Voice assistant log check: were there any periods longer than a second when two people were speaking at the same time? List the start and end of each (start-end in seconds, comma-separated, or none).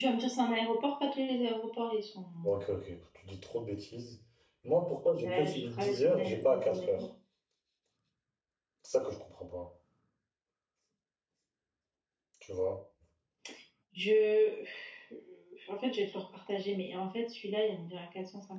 5.2-7.0